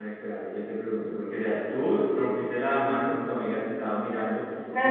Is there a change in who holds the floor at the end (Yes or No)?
Yes